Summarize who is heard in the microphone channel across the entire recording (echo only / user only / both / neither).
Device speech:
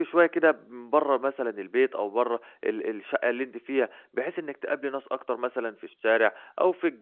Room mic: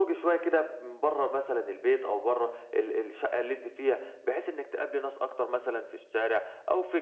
echo only